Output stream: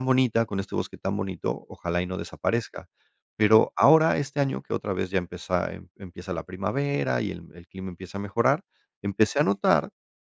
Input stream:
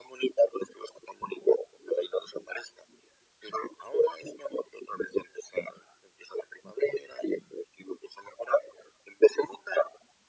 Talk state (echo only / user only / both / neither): echo only